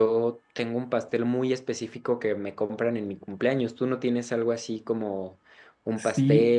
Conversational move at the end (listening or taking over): taking over